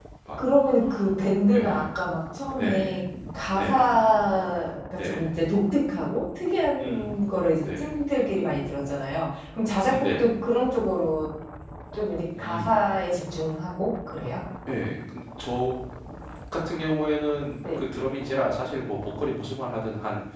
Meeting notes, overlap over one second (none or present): present